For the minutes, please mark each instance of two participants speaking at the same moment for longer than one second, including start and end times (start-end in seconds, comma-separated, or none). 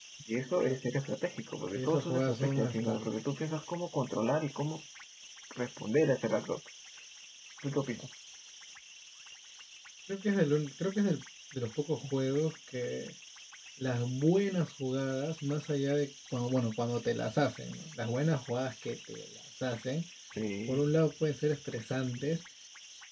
1.8-3.0